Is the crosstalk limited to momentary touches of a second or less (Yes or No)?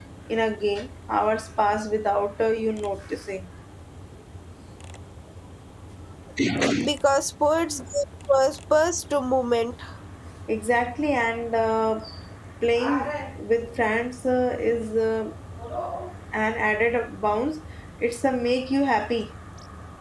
Yes